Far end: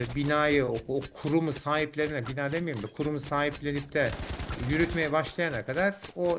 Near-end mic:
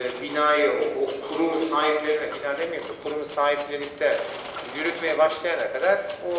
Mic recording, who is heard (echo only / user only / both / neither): echo only